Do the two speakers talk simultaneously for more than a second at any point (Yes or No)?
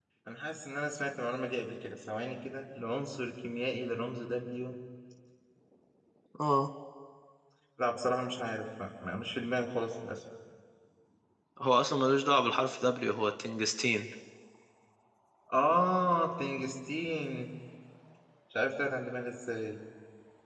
No